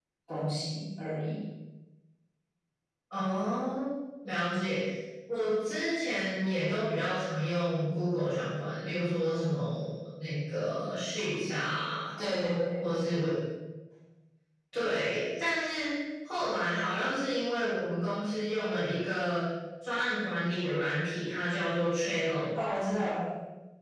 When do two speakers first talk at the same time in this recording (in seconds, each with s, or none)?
none